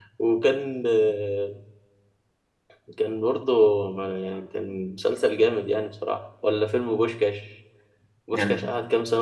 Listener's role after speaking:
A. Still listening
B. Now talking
A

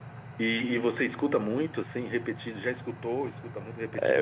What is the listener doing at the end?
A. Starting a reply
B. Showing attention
A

